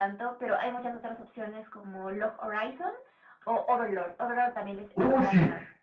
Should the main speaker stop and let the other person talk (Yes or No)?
Yes